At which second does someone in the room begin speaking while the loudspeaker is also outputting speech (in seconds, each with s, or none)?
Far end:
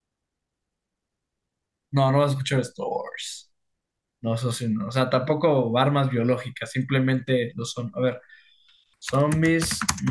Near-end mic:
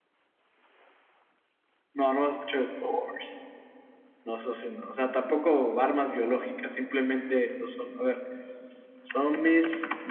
none